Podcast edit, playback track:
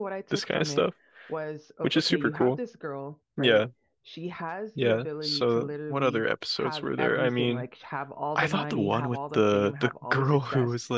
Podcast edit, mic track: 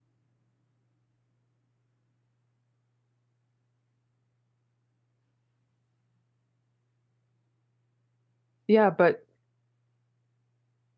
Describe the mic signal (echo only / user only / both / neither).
user only